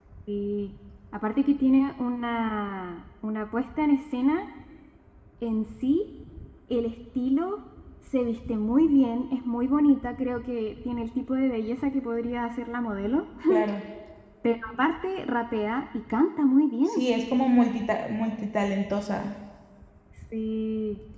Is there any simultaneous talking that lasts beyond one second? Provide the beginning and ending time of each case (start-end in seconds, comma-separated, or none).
none